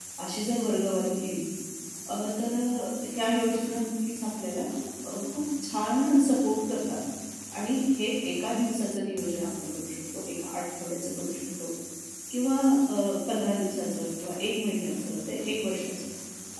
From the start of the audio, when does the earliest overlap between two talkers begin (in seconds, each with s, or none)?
none